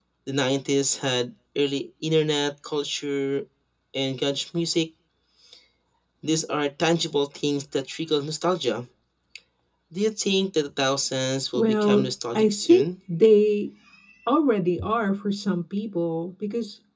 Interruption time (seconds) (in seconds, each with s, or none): 11.5 s